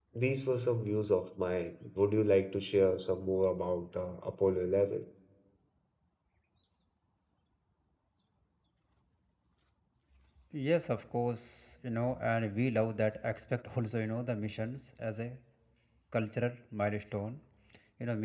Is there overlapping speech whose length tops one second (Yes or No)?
No